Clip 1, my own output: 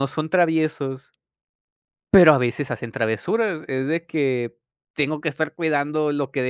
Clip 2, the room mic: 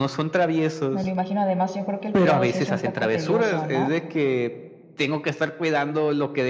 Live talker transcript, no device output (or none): me lo imagino. Además, yo creo que el cuidado sí es un poco tedioso, ¿no?